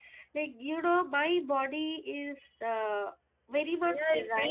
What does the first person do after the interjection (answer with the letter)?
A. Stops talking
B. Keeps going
A